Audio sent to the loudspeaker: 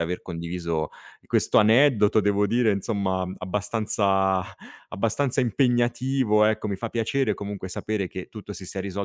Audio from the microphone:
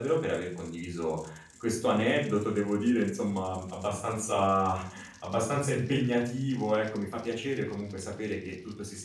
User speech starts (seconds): none

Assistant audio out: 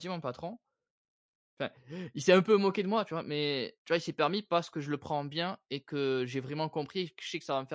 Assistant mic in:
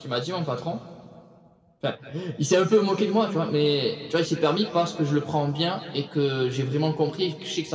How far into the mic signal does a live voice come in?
none

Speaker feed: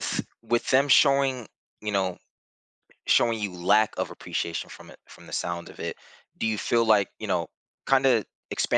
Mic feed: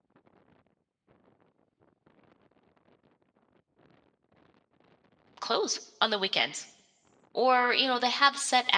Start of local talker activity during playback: 5 s

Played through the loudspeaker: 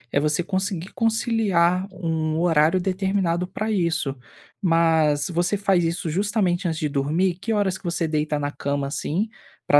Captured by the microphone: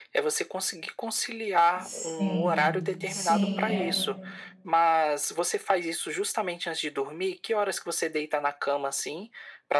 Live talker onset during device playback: 2 s

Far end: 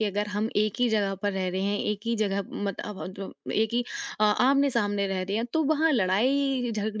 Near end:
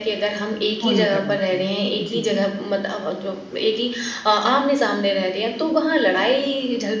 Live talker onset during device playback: 1 s

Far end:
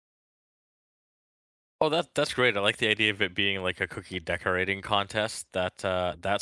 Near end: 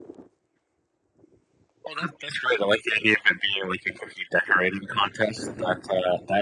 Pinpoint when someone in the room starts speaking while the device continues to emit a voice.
none

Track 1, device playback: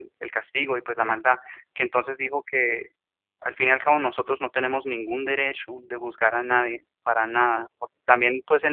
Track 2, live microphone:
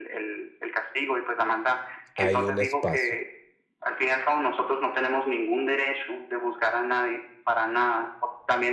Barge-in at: 2 s

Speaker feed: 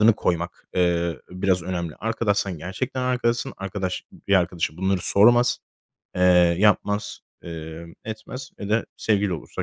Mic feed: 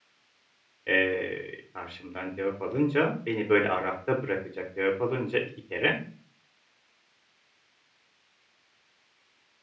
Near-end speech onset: 1 s

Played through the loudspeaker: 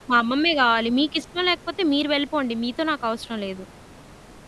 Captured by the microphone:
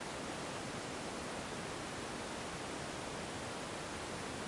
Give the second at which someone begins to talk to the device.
none

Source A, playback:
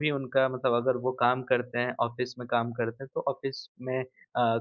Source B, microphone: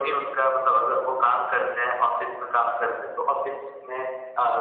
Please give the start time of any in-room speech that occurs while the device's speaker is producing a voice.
none

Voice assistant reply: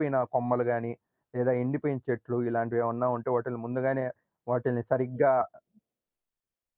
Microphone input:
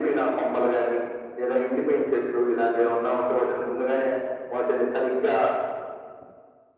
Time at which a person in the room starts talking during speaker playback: none

